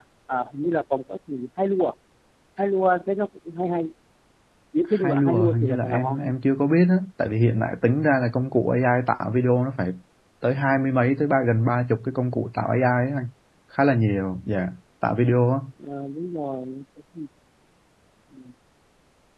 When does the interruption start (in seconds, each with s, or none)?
5.0 s